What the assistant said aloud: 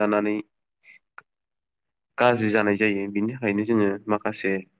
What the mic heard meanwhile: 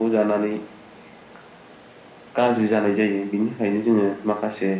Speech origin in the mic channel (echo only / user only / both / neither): echo only